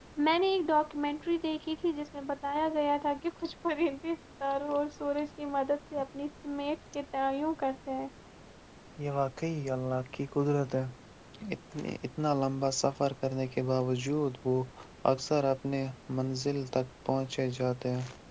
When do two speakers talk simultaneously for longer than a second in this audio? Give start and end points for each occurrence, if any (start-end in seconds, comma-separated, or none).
none